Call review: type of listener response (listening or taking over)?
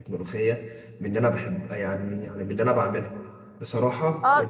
listening